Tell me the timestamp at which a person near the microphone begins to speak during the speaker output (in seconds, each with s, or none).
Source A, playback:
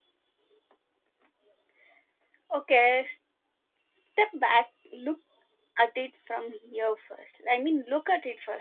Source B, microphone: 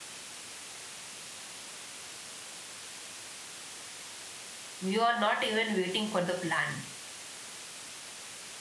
4.8 s